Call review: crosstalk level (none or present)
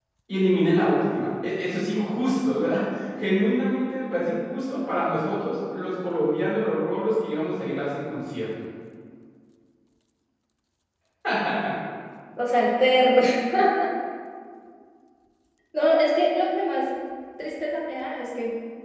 none